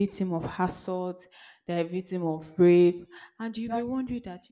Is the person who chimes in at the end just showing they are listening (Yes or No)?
Yes